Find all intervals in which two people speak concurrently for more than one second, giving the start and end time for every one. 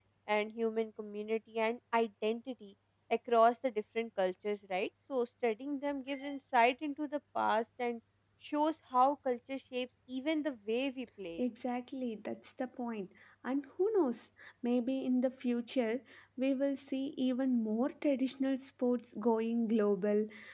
none

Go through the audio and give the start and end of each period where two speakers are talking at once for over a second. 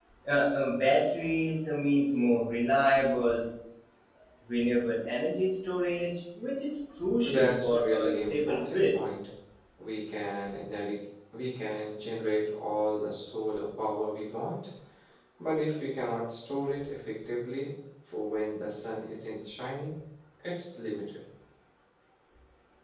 7.2-8.8

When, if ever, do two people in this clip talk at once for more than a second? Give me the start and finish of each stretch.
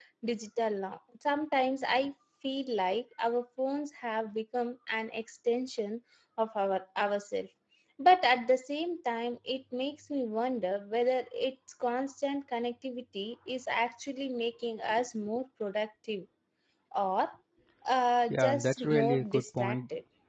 18.3-19.8

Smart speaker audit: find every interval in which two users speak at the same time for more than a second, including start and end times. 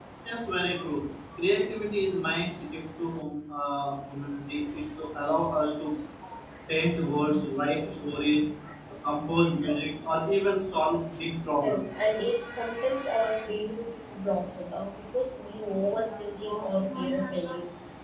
none

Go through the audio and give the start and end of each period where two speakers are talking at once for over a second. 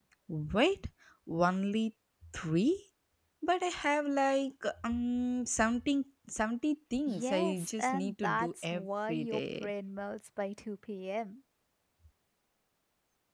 7.1-9.7

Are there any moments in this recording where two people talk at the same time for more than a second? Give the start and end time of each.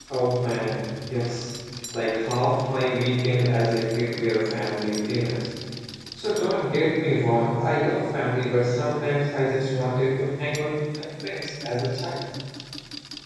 none

